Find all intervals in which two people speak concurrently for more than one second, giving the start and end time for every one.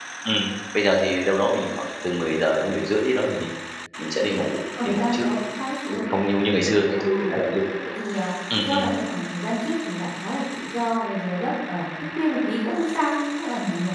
none

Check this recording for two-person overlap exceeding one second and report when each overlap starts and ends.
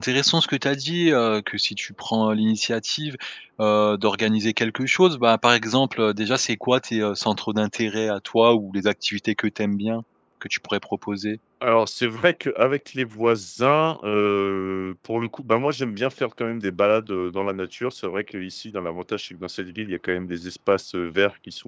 none

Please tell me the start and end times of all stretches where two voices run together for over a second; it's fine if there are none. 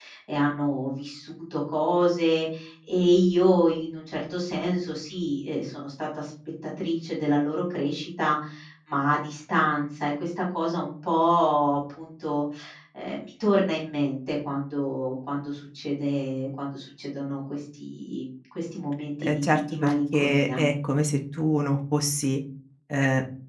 19.2-20.6

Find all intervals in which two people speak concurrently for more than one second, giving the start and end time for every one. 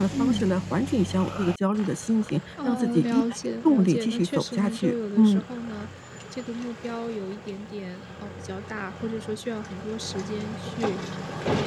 2.6-5.4

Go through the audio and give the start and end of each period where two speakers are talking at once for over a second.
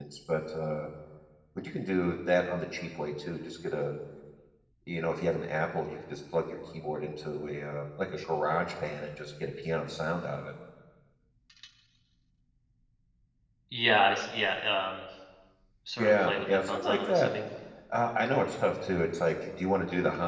16.0-17.3

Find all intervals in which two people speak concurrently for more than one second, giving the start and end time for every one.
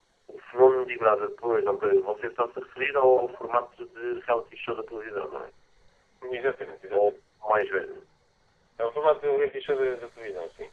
none

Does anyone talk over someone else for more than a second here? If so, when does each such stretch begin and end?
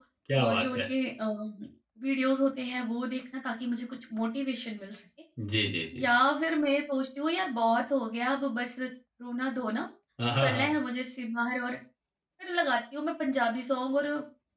none

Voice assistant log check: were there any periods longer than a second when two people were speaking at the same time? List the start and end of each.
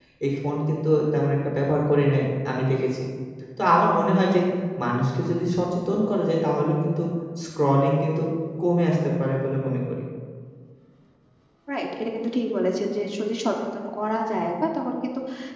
none

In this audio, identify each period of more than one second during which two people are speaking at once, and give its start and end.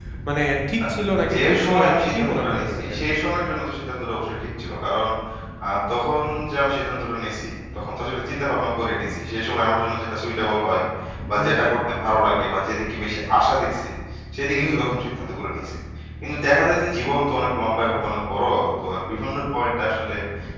1.3-2.9

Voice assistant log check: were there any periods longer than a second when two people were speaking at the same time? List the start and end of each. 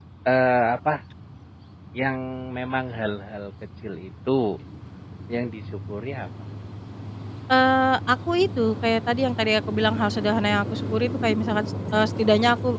none

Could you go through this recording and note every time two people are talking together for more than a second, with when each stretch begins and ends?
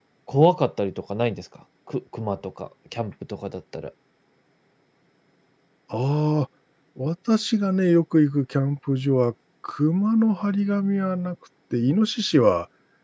none

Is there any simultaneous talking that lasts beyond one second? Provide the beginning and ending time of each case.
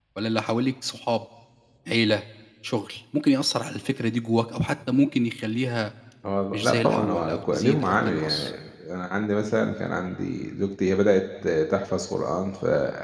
6.5-8.5

